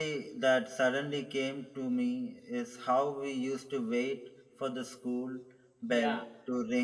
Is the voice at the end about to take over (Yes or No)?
No